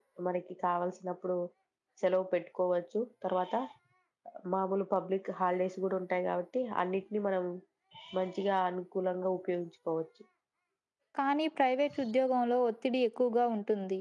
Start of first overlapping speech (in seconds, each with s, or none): none